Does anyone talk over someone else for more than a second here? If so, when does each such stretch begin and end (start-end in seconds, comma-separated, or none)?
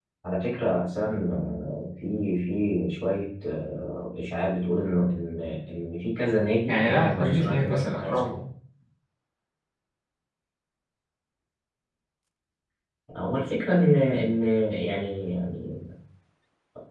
6.7-8.2